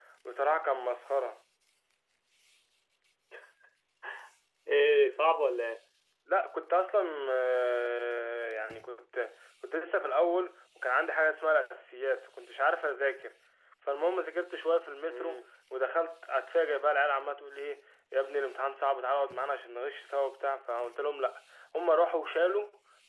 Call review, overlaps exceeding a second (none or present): none